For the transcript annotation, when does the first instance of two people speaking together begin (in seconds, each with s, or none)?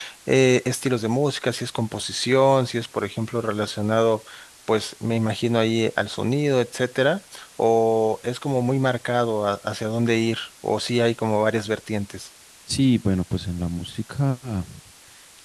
none